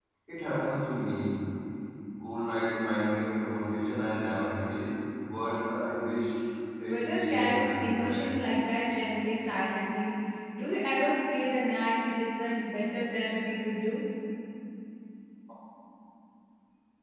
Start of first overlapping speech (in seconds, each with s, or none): 6.9 s